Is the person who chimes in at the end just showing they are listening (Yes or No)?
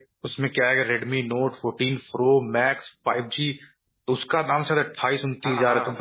Yes